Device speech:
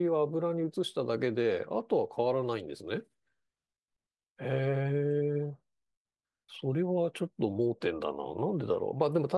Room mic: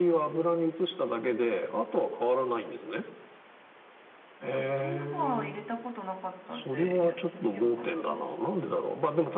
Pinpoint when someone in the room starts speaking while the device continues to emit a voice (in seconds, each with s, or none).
4.4 s